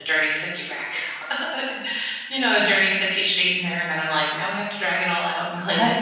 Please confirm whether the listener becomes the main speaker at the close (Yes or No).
Yes